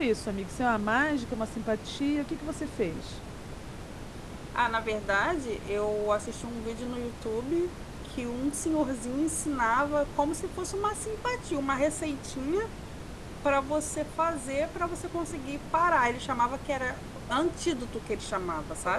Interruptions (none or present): none